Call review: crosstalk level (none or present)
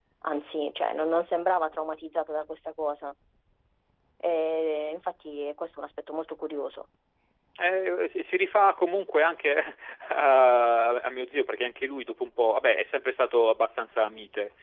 none